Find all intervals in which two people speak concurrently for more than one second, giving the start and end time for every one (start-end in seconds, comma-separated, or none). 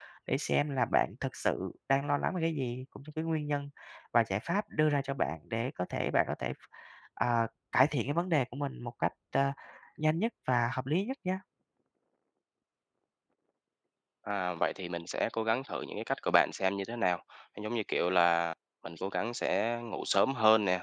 none